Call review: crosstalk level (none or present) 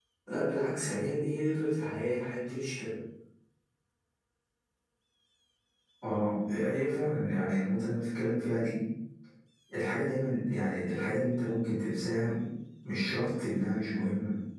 none